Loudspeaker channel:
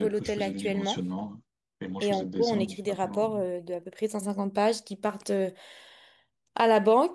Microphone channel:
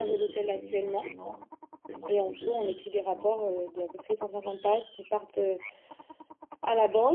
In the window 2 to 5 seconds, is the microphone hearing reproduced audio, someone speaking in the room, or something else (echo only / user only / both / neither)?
echo only